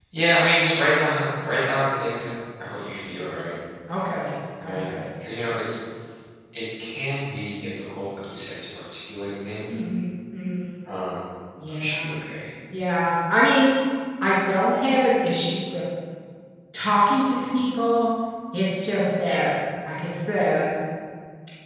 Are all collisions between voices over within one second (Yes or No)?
Yes